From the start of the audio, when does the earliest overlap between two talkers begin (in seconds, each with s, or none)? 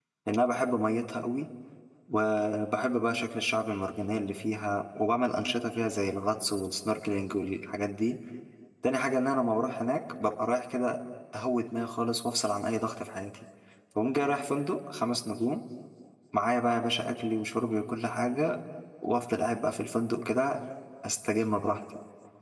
none